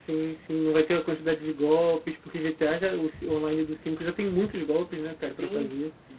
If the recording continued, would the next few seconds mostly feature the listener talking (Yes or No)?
Yes